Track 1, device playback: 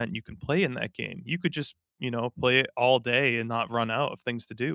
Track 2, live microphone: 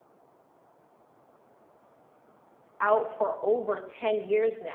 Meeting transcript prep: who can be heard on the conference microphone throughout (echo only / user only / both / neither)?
user only